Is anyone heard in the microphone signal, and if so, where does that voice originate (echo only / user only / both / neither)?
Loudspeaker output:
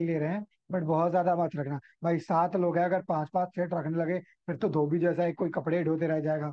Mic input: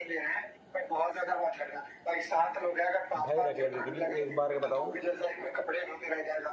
both